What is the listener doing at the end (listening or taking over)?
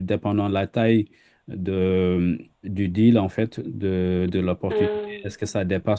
listening